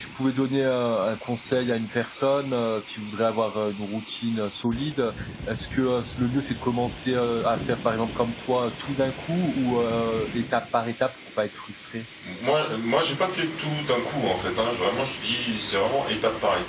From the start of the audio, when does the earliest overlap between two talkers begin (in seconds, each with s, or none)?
none